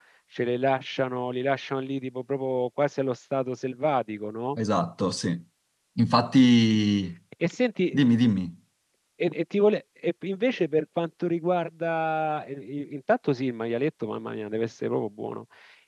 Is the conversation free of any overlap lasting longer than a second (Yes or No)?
Yes